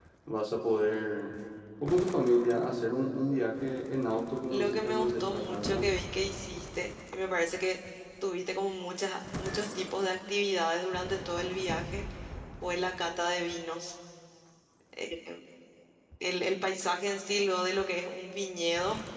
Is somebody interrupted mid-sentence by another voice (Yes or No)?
Yes